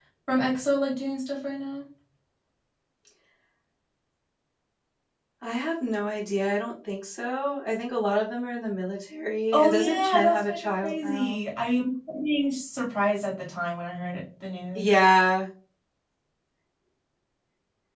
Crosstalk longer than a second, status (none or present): present